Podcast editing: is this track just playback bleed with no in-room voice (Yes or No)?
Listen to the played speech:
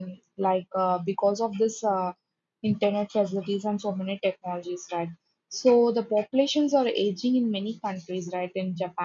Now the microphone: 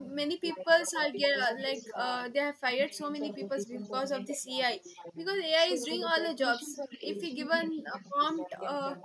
No